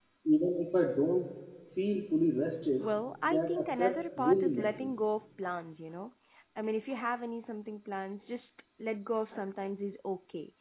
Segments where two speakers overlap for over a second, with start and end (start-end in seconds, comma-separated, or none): 3.2-5.0